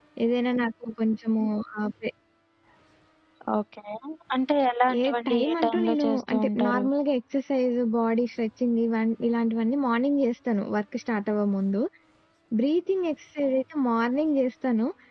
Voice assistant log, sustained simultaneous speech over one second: present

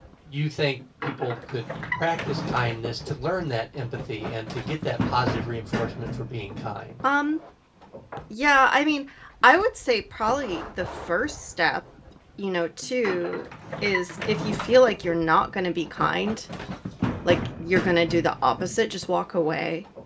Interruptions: none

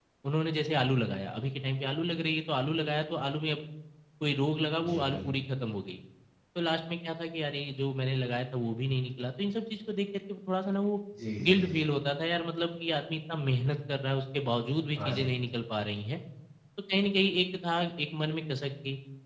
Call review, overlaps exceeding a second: none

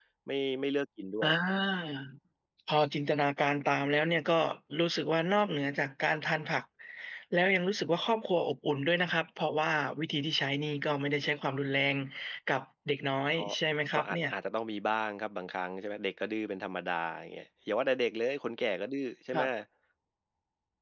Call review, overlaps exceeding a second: none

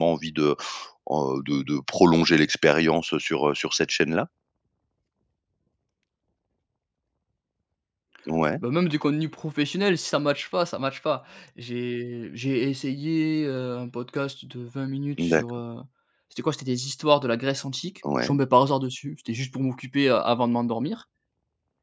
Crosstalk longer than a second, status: none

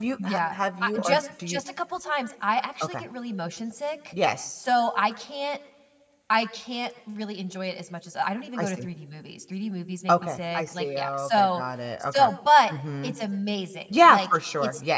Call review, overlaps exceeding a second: present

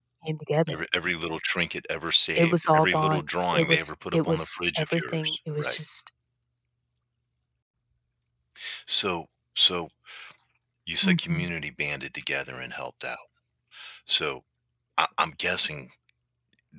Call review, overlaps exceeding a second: present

